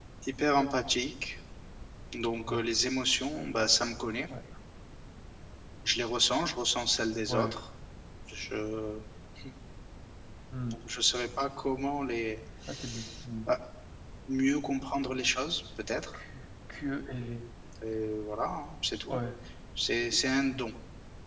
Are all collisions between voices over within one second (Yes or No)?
Yes